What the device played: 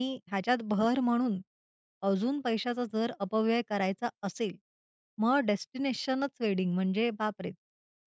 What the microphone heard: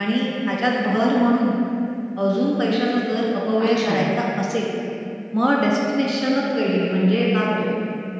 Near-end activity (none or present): present